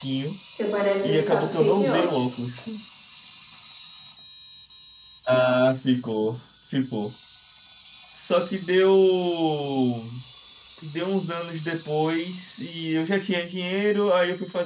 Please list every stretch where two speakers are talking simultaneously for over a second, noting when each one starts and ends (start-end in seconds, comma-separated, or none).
1.0-2.2